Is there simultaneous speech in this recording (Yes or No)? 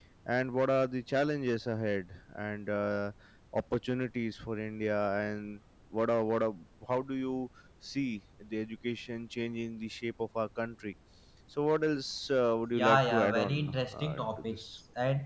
Yes